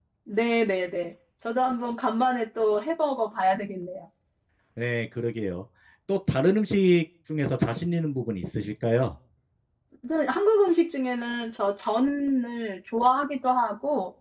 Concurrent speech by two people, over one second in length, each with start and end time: none

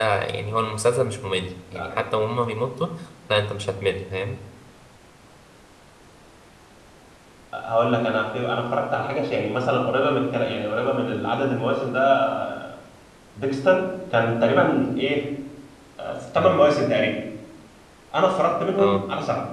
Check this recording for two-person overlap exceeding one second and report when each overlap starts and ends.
none

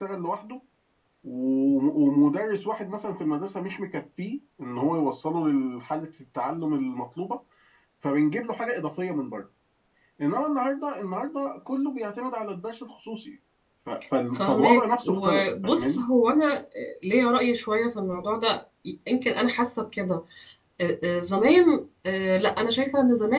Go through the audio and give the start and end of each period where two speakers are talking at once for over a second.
14.3-16.0

